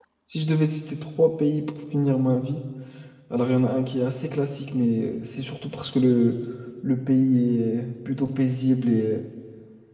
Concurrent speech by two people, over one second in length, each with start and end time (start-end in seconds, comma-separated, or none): none